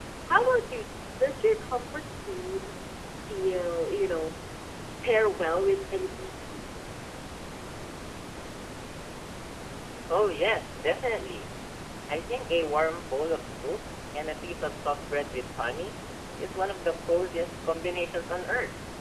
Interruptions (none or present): none